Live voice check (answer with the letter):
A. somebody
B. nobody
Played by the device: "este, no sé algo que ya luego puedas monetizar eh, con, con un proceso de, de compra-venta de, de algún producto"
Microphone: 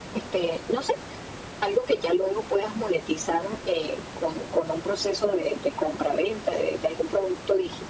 B